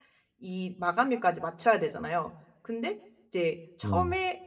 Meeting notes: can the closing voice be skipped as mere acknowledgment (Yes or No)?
Yes